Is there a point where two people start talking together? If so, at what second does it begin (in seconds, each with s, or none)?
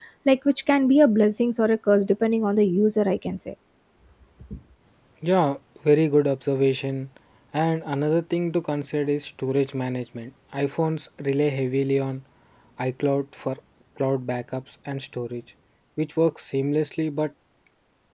none